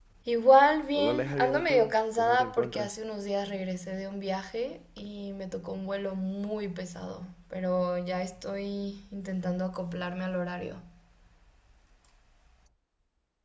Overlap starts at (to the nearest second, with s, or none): 1 s